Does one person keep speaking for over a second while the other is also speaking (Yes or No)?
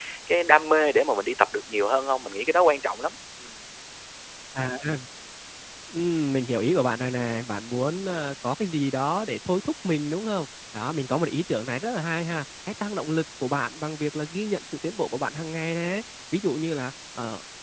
No